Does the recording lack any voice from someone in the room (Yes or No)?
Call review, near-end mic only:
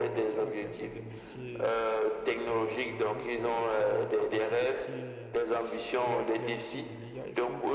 No